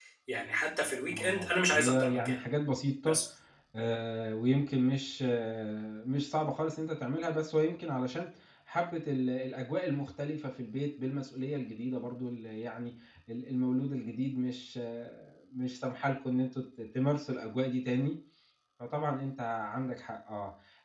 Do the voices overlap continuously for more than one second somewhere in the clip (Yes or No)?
Yes